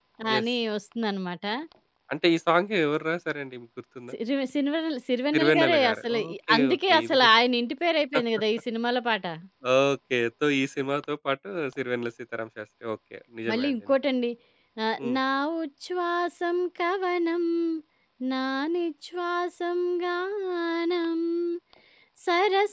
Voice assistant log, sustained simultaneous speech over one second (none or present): present